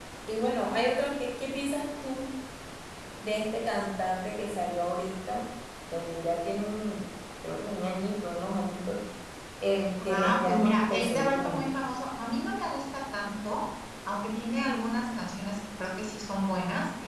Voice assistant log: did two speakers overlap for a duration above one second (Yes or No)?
Yes